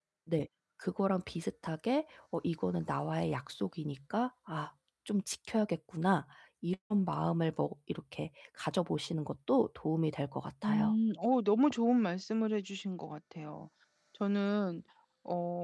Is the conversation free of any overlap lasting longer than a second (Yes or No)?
Yes